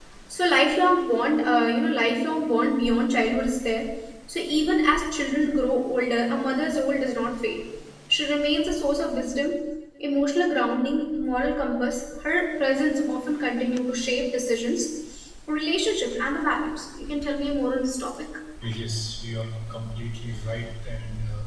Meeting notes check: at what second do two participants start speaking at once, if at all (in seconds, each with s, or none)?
none